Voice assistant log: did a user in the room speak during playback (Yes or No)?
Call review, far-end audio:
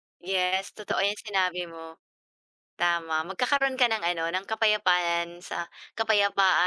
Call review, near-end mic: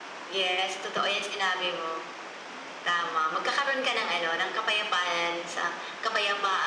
No